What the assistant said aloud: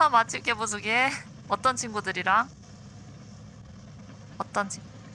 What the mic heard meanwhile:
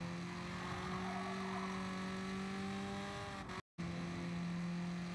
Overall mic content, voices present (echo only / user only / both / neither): neither